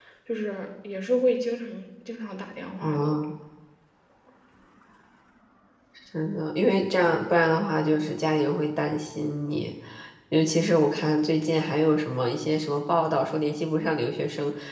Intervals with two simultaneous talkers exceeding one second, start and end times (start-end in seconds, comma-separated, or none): none